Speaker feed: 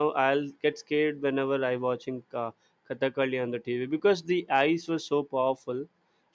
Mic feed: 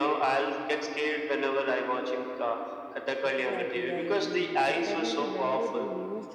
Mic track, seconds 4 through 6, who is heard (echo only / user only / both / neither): both